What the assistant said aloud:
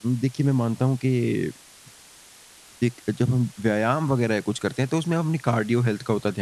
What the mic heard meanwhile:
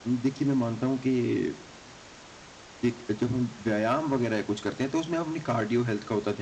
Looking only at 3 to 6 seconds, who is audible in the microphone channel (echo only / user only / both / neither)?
echo only